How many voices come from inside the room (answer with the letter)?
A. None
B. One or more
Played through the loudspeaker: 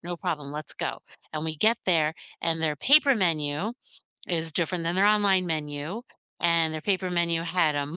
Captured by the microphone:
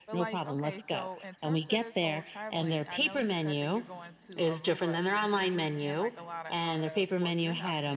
B